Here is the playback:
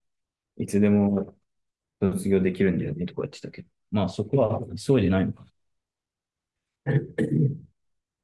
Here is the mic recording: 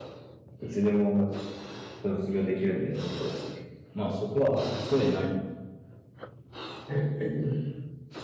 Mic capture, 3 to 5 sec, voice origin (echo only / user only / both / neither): echo only